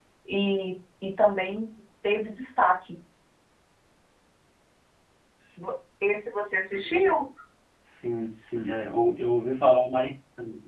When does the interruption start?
none

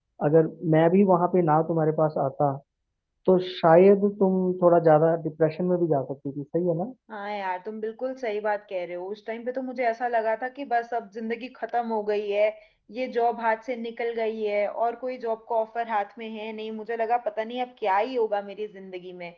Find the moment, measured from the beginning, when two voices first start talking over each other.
none

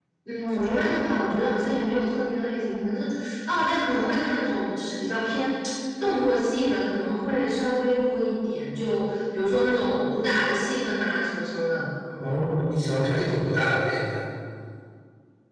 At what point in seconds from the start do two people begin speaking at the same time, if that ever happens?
none

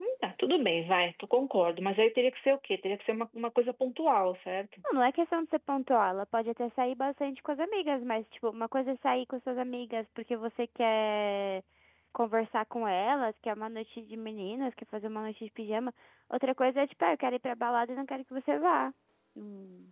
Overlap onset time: none

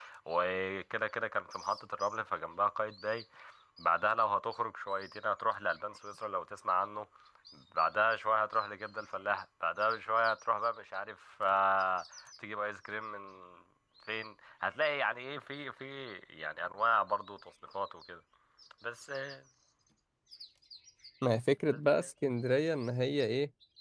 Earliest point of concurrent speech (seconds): none

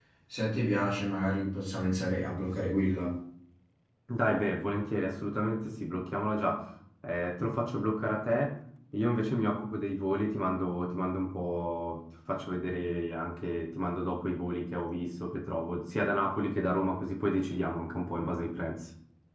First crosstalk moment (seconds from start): none

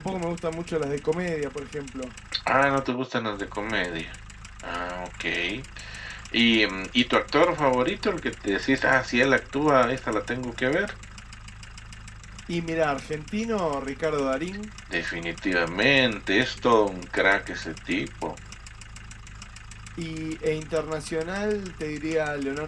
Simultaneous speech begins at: none

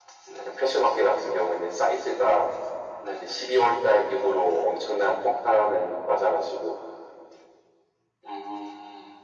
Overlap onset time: none

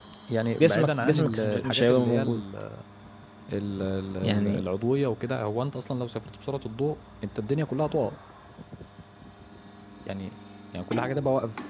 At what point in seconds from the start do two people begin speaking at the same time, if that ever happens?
0.6 s

